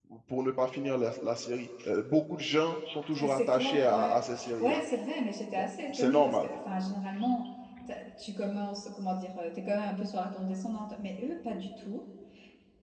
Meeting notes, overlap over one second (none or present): present